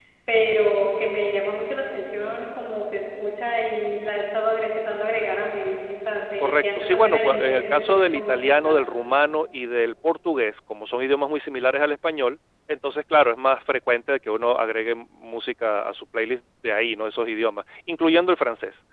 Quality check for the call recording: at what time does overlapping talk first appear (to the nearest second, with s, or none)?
6 s